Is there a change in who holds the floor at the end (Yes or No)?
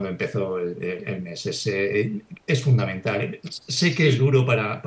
No